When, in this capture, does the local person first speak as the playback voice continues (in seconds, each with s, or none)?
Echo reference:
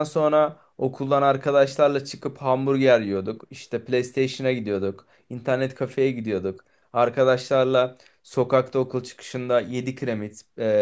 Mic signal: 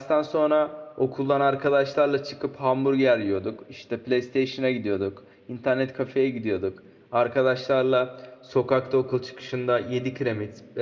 none